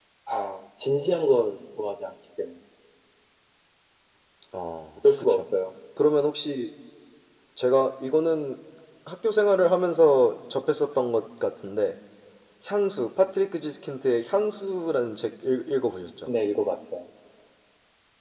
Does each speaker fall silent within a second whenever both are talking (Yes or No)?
Yes